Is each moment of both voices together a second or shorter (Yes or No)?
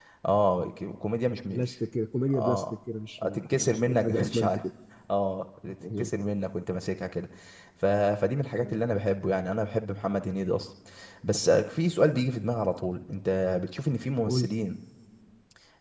No